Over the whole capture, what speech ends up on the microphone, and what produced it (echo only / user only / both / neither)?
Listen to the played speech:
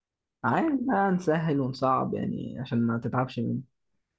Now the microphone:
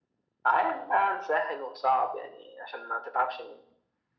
echo only